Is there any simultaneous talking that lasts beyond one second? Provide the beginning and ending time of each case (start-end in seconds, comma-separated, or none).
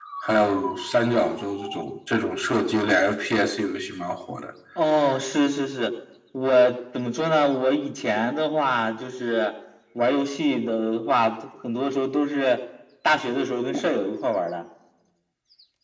none